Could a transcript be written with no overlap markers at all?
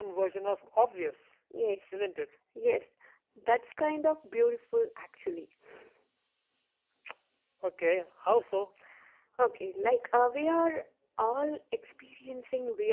Yes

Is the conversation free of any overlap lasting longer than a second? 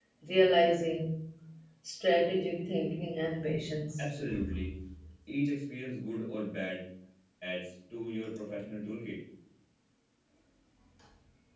Yes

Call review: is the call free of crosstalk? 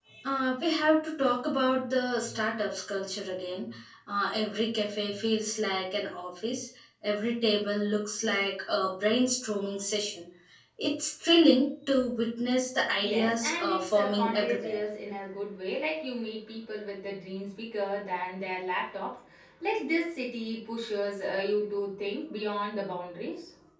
No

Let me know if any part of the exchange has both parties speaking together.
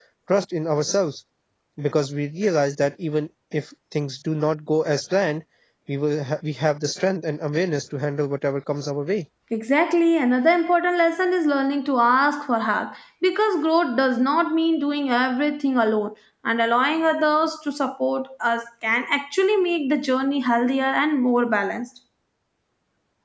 No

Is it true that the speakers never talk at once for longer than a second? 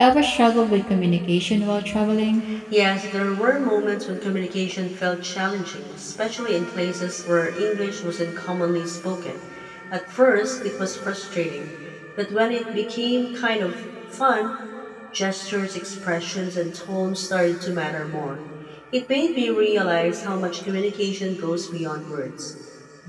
Yes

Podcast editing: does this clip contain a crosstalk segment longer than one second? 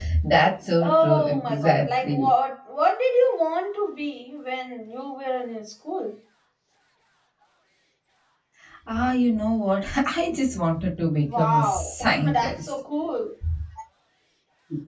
Yes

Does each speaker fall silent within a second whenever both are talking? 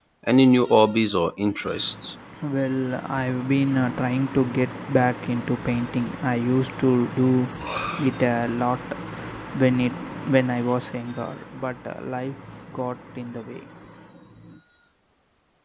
Yes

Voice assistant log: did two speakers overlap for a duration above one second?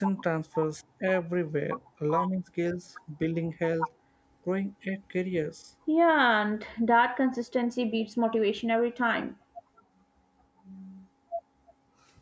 No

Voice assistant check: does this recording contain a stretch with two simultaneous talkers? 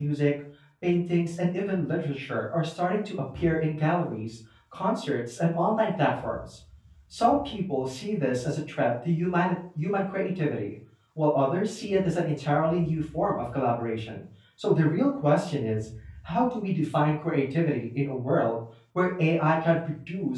No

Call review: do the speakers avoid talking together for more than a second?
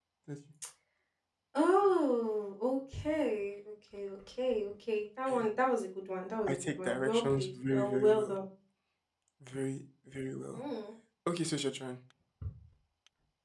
No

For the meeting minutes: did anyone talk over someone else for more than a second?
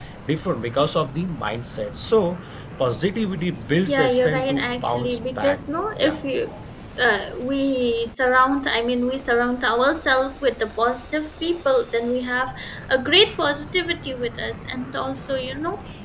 Yes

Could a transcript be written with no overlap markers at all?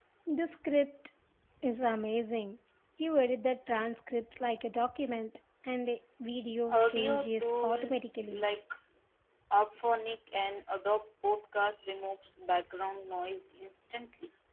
No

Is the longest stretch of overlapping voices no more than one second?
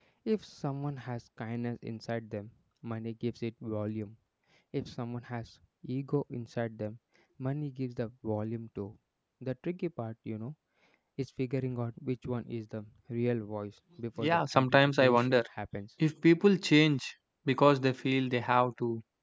No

